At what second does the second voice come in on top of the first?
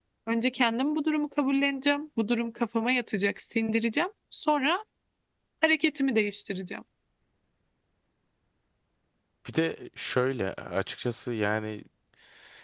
none

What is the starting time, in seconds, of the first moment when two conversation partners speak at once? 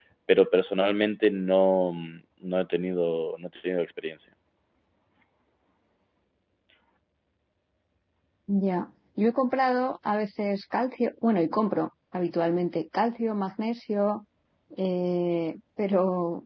none

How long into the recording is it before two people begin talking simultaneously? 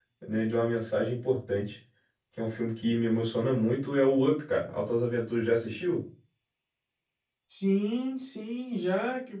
none

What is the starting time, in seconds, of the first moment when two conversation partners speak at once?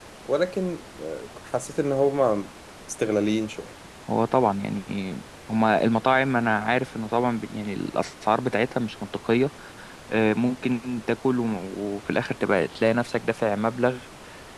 none

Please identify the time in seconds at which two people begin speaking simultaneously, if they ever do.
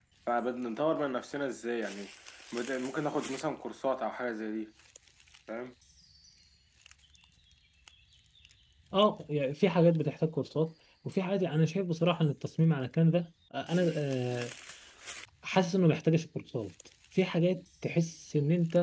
none

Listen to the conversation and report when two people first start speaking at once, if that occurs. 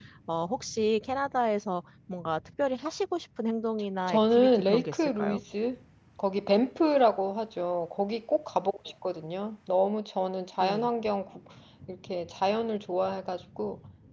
4.1 s

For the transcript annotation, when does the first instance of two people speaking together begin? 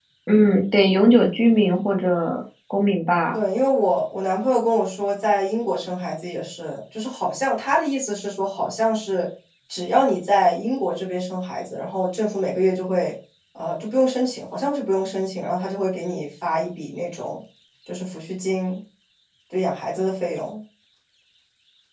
none

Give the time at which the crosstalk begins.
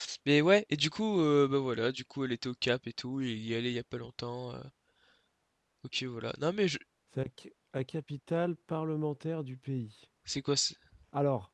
none

